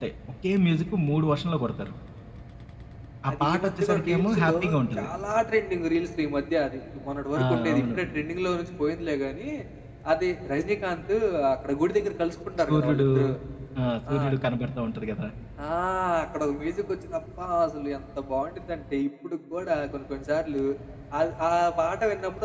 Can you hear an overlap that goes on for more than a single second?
Yes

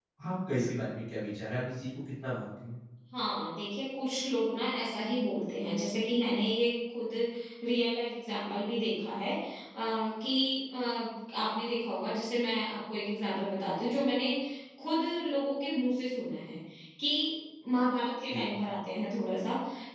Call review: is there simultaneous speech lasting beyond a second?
No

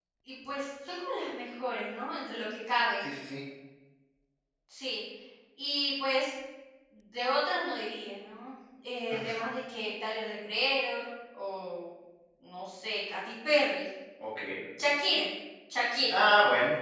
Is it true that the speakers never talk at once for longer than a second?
Yes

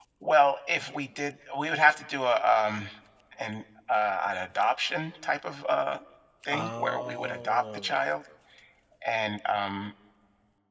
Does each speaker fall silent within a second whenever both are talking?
No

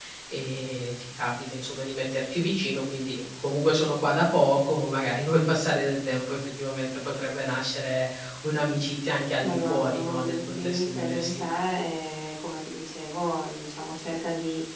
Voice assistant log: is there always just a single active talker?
No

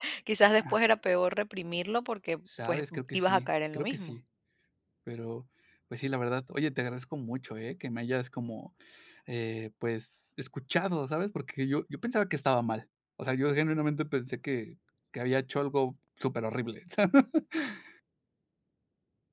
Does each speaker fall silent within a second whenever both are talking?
No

